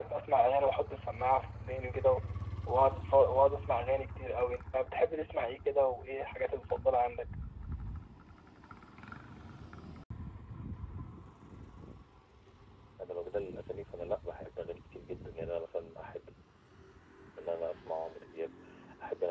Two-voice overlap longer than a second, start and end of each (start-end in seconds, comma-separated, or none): none